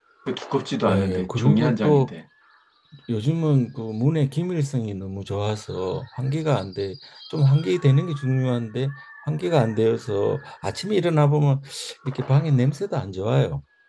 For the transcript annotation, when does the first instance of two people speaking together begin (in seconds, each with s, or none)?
0.9 s